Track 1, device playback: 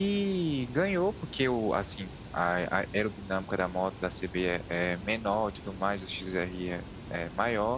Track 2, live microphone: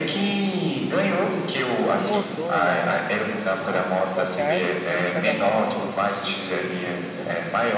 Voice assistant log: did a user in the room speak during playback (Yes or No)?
Yes